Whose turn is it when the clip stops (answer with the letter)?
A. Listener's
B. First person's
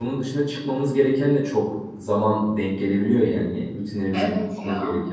B